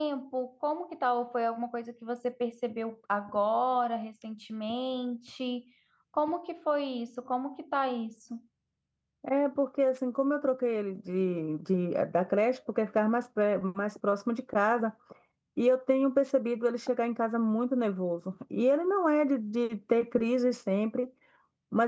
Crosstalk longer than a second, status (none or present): none